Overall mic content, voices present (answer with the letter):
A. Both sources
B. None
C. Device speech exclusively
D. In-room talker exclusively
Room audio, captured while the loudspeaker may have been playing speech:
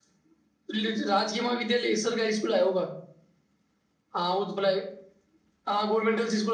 D